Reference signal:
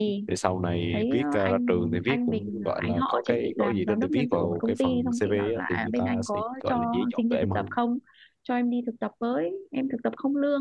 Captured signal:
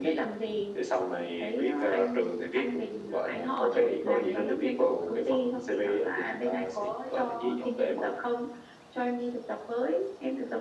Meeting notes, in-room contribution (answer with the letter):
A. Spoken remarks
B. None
A